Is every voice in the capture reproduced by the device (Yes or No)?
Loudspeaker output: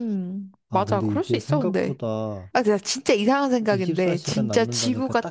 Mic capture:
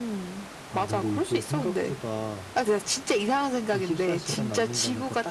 Yes